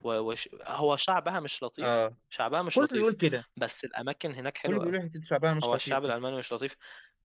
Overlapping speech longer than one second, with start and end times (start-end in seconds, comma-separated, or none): none